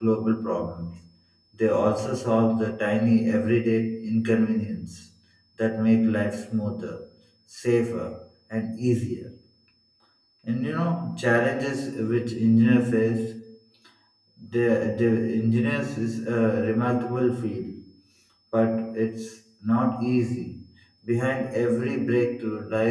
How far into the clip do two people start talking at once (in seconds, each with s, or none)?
none